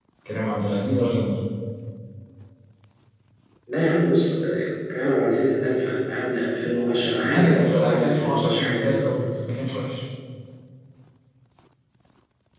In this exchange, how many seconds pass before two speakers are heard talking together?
7.2 s

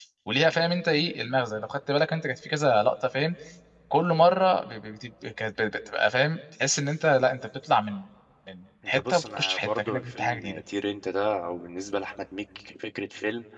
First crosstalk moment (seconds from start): 8.9 s

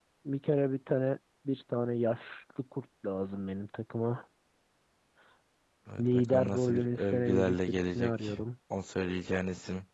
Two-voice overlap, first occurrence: 6.0 s

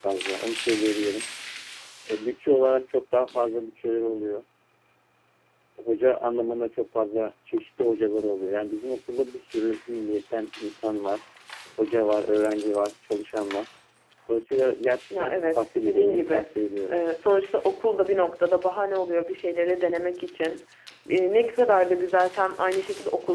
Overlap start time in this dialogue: 15.2 s

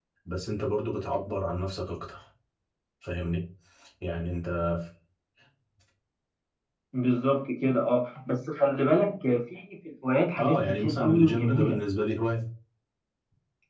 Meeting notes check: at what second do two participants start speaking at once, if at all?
10.4 s

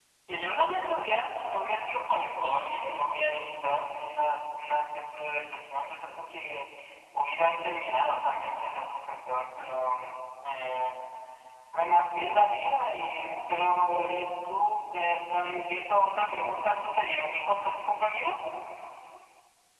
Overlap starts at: none

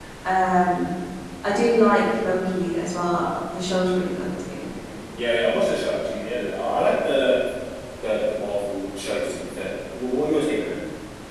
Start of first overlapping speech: none

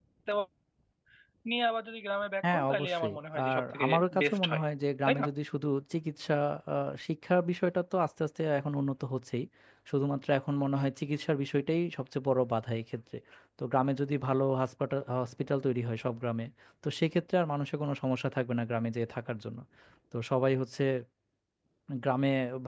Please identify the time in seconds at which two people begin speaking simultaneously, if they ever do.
2.4 s

